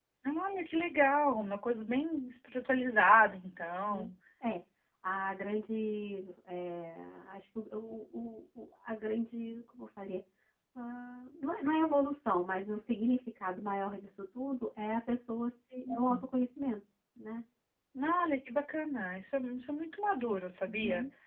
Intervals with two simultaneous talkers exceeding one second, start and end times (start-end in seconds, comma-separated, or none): none